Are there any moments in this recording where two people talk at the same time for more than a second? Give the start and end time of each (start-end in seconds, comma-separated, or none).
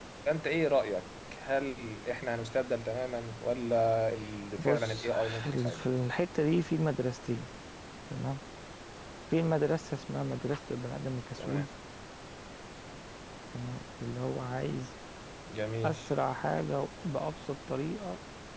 4.6-5.8